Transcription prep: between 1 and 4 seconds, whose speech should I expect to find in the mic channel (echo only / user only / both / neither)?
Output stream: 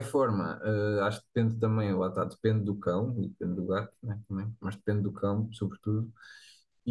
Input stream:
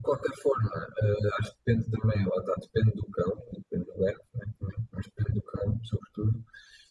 echo only